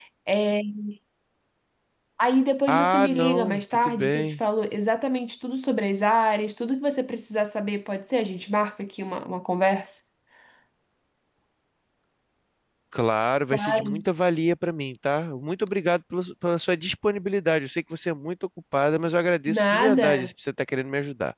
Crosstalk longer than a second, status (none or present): present